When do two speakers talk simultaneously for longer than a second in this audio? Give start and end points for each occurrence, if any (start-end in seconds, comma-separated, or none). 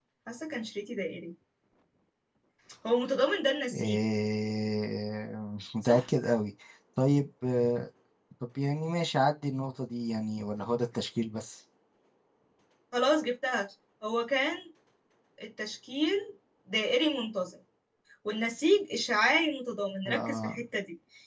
none